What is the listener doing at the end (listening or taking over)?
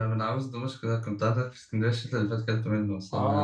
taking over